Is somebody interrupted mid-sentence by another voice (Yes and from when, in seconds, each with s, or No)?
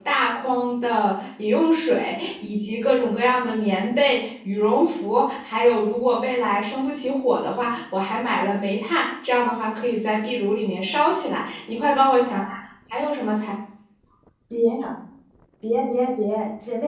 No